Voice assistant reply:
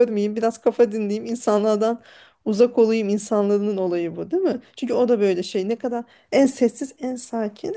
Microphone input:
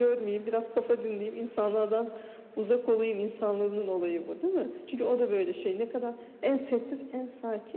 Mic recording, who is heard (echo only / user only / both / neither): echo only